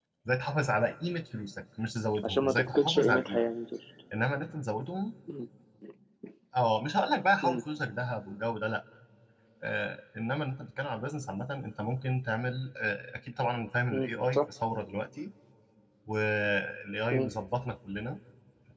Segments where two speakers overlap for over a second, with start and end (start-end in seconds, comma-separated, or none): 2.2-3.5